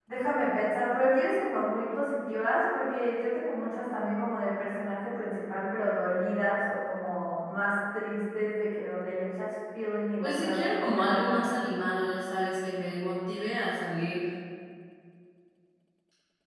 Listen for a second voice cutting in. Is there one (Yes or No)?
Yes